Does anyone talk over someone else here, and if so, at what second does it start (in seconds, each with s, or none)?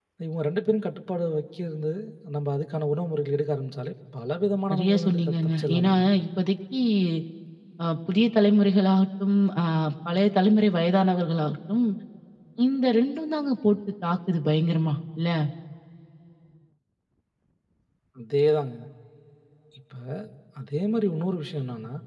4.7 s